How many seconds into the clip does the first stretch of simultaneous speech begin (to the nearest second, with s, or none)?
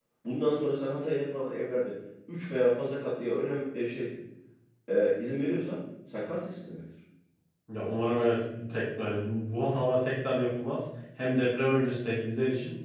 none